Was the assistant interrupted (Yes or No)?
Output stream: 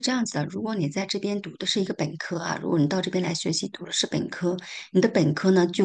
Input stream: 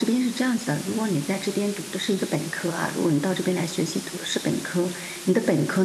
No